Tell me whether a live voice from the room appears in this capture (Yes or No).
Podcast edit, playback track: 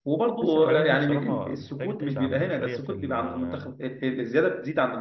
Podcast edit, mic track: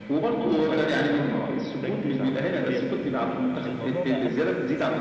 Yes